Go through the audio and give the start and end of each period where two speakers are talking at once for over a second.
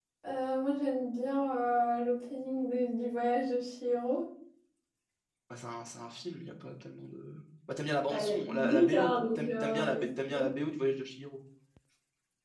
8.1-10.5

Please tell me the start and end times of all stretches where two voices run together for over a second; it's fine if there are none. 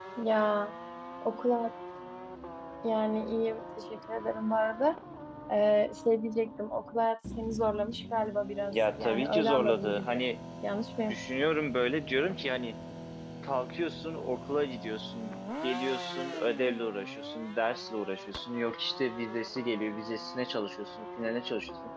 8.7-10.2

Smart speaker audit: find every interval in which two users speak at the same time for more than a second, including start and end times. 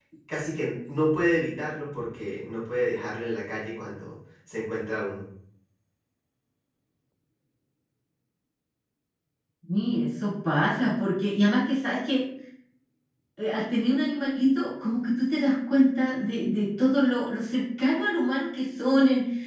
none

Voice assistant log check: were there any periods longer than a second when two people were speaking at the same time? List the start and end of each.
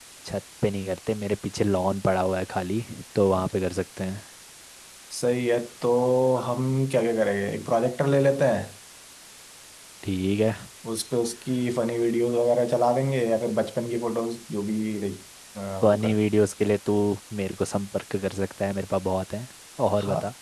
none

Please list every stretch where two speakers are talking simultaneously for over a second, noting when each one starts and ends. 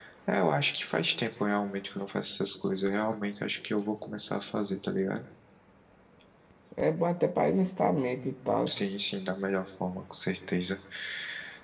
none

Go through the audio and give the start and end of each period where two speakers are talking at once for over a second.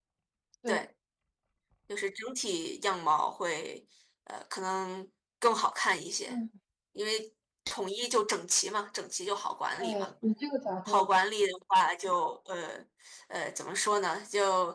none

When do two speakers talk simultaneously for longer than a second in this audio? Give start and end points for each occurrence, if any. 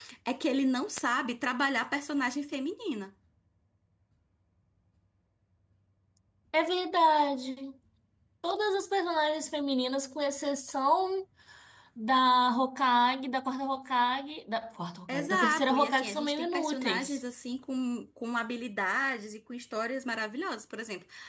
15.1-17.2

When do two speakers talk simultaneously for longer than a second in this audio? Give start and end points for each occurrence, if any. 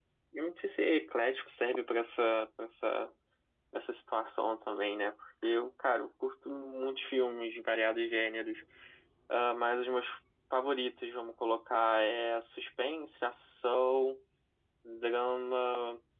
none

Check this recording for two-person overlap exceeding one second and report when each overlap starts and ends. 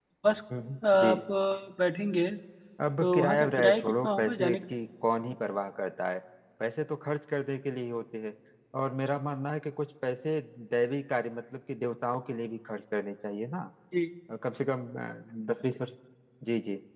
3.0-4.6

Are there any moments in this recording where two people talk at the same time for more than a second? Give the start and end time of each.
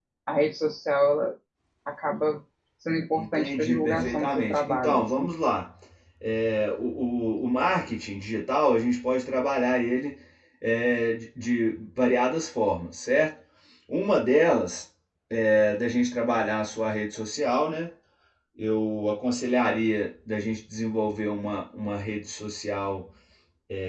3.2-5.3

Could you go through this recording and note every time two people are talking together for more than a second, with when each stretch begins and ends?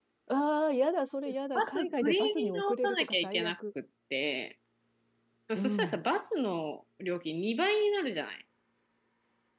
1.6-3.5

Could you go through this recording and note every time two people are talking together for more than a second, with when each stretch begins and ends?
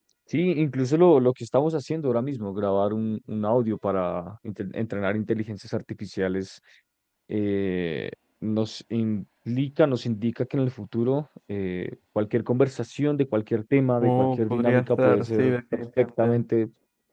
14.0-16.4

